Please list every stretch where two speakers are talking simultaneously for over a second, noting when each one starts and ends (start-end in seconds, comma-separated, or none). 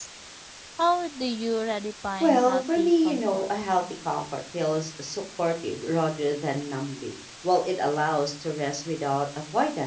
2.2-3.5